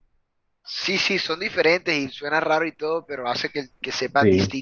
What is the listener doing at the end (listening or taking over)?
taking over